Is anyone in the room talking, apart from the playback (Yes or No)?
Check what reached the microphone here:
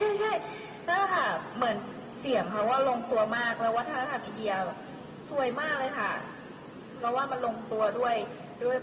No